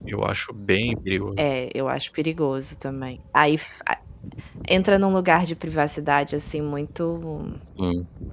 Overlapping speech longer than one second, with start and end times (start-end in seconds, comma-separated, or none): none